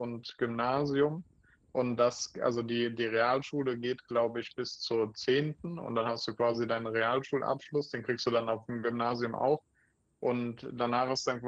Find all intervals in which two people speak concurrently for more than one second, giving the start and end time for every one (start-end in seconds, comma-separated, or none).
none